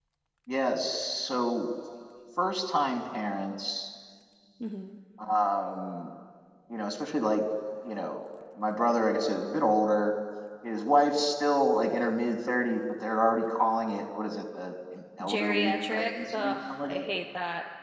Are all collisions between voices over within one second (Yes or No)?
No